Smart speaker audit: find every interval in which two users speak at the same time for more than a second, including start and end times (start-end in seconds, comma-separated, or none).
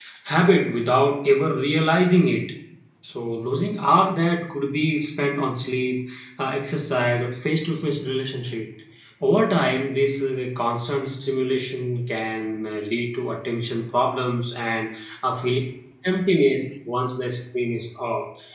none